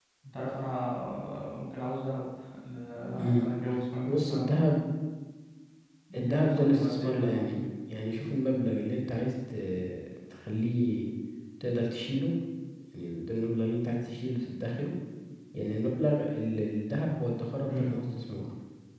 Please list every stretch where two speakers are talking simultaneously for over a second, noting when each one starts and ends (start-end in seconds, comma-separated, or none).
6.2-7.6